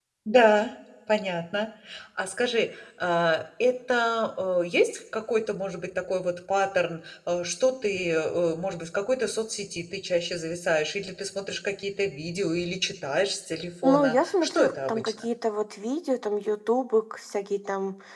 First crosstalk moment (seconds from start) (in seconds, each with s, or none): 13.8 s